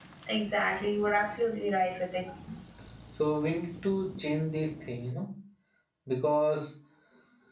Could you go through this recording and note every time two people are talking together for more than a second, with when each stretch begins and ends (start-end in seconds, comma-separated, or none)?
none